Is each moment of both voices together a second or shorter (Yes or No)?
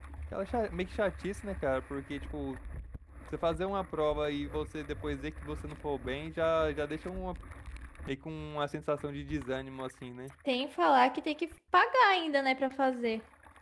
Yes